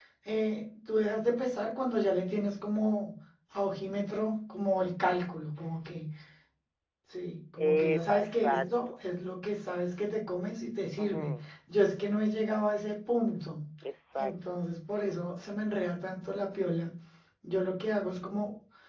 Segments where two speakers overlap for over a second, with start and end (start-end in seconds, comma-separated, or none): 7.6-8.9